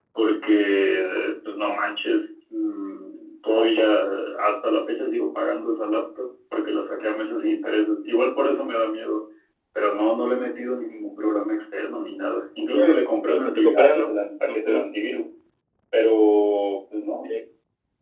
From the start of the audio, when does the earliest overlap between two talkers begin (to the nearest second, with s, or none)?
13 s